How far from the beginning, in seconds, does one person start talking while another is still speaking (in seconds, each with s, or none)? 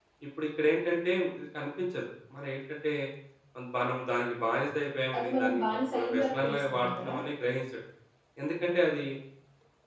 5.1 s